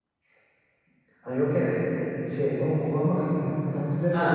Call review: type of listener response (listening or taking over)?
taking over